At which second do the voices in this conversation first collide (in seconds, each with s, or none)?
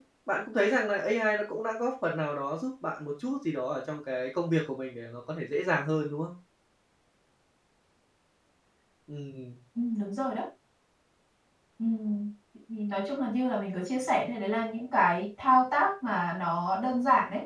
none